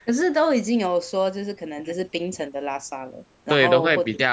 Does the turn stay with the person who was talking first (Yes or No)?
No